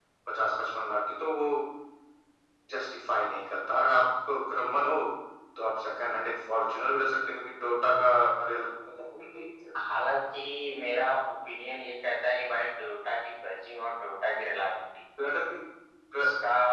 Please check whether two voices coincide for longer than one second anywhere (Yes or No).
No